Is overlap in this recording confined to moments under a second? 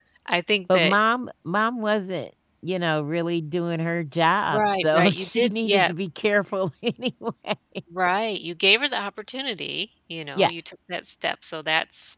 No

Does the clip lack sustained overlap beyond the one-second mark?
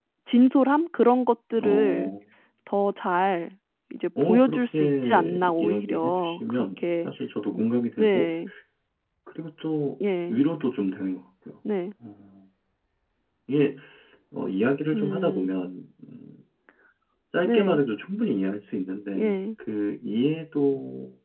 No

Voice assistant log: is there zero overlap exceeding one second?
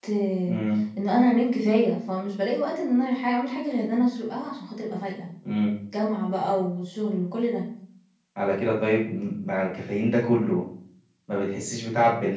Yes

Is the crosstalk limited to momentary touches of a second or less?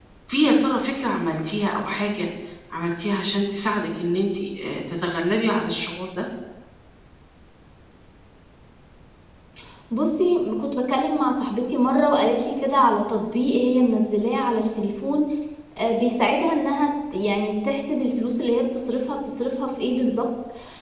Yes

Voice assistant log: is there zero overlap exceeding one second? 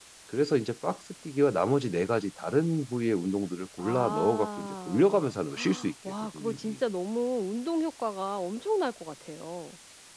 No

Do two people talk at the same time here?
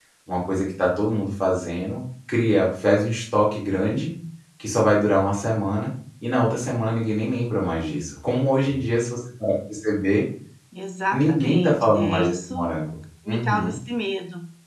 Yes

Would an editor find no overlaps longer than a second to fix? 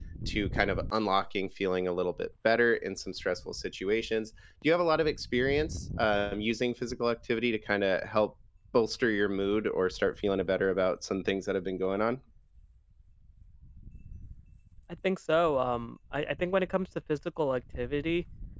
Yes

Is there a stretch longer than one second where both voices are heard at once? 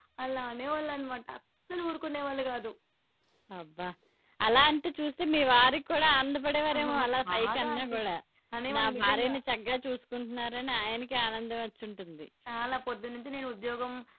Yes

